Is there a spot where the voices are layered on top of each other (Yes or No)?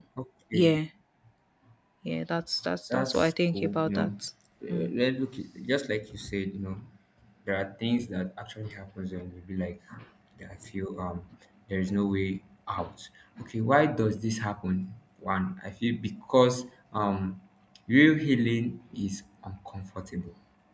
Yes